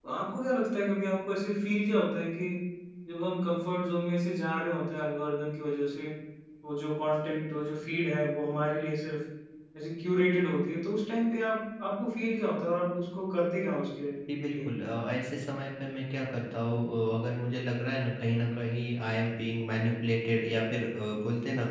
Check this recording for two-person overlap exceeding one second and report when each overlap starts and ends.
none

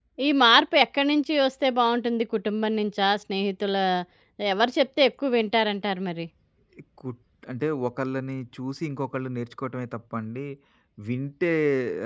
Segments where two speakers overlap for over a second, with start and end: none

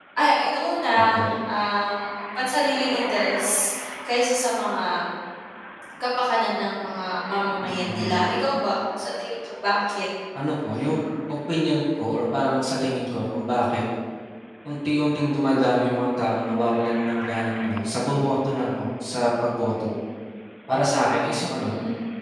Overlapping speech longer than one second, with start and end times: none

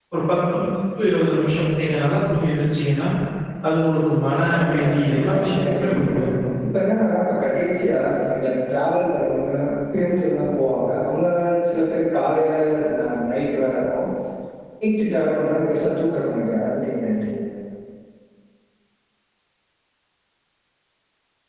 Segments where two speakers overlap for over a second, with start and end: 4.5-6.1

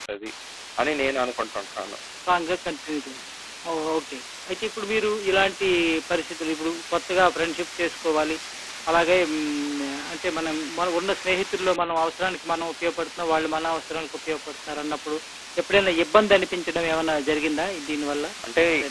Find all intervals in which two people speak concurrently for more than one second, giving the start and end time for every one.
none

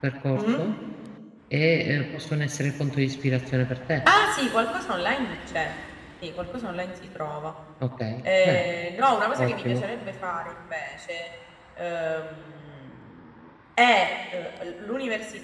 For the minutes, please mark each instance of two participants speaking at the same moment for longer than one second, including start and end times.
none

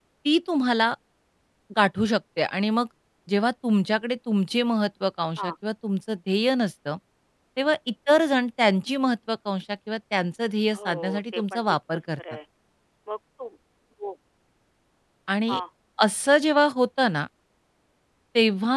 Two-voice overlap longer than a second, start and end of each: 10.7-12.2

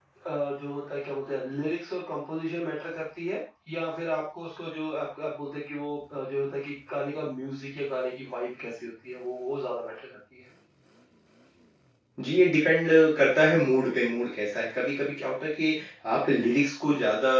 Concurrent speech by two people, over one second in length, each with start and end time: none

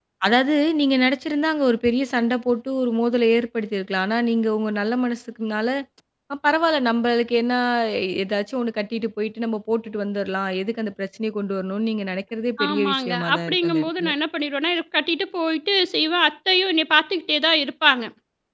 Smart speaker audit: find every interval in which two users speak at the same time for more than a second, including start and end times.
12.6-14.1

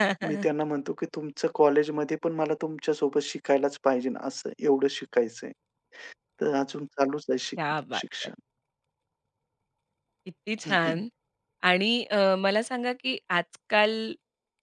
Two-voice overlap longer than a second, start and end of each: none

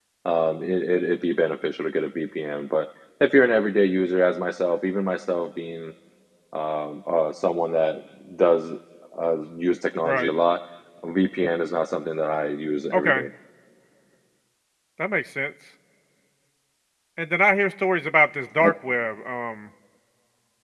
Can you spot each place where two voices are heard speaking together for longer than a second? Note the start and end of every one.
none

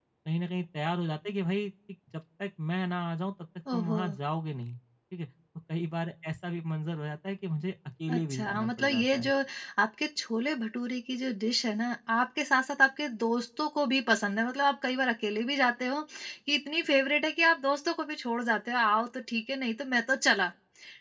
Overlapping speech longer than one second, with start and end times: 8.1-9.3

